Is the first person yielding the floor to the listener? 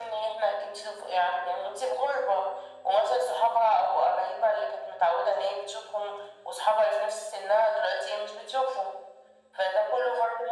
No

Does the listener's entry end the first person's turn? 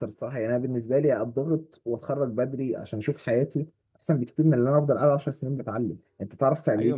Yes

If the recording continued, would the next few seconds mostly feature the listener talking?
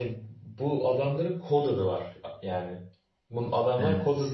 No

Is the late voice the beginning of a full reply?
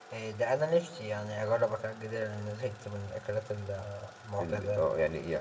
Yes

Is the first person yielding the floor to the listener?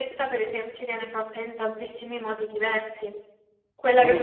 No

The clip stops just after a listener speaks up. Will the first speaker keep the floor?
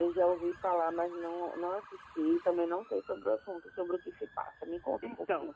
No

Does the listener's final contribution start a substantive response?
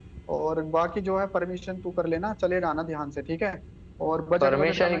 Yes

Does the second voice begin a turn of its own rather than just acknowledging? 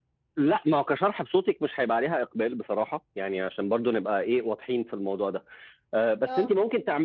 No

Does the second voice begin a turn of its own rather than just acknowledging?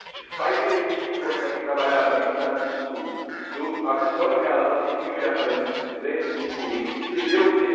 No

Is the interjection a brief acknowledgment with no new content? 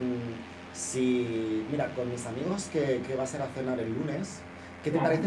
Yes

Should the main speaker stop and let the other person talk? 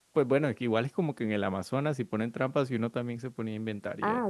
Yes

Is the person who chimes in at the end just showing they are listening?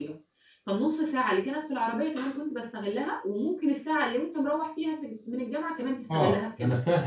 No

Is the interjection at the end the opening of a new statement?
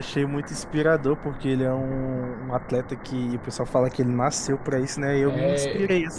No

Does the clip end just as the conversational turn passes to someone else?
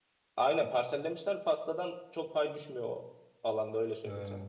No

